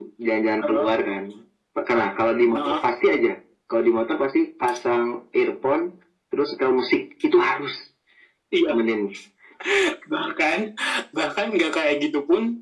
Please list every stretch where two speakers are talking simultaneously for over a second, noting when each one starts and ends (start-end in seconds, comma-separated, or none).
none